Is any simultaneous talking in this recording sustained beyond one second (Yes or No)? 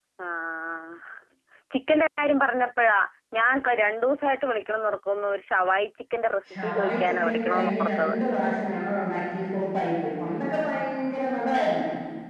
Yes